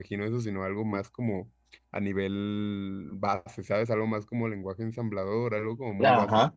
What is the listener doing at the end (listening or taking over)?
taking over